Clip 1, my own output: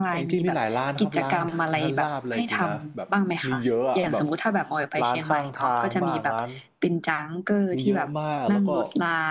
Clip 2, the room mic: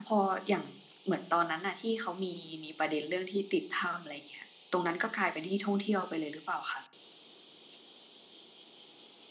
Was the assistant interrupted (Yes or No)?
Yes